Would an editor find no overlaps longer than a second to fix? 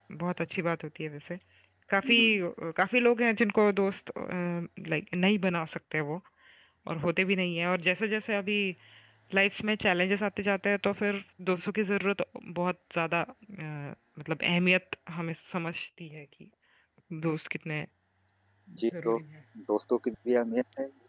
Yes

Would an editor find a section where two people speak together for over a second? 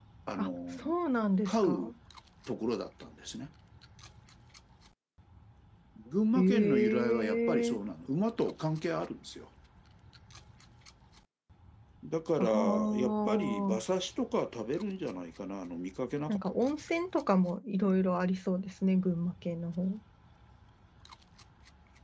Yes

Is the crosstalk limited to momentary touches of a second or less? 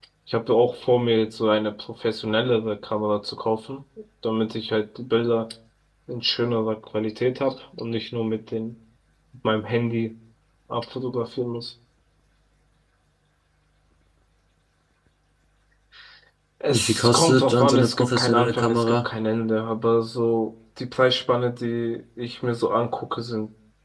No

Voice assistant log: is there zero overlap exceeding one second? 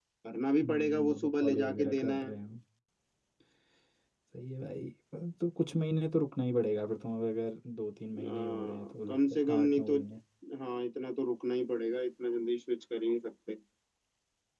No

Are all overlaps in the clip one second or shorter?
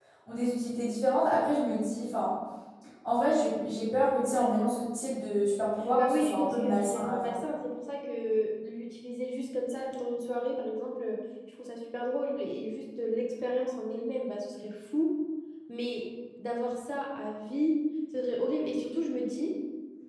No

